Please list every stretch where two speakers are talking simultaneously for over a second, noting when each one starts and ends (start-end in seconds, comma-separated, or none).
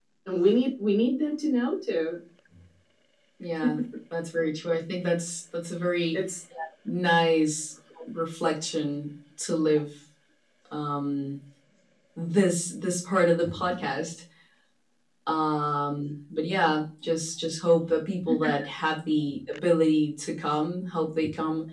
none